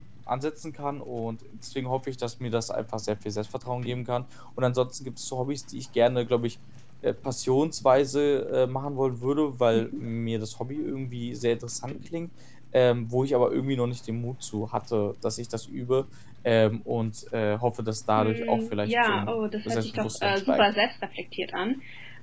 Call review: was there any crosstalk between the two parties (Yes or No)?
Yes